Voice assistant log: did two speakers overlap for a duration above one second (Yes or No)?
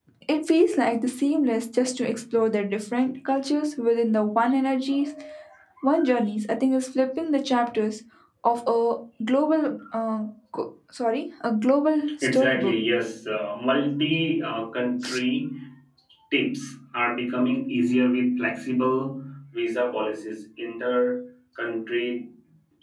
No